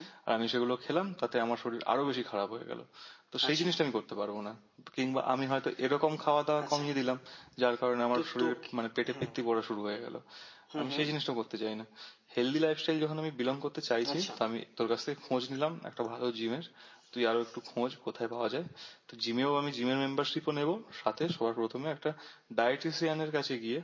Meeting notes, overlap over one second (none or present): none